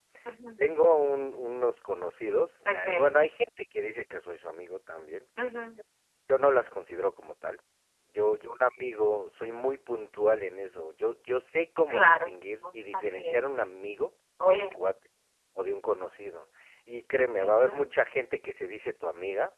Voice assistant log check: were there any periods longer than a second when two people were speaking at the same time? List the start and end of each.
11.9-13.4

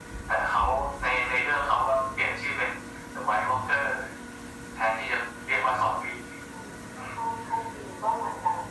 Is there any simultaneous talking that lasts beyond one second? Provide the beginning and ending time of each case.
none

